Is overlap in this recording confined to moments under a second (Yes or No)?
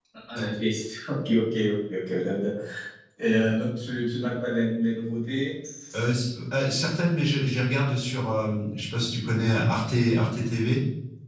Yes